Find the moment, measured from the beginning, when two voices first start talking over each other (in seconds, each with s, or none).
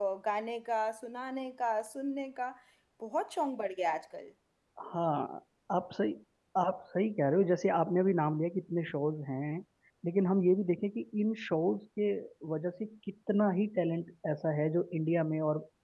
none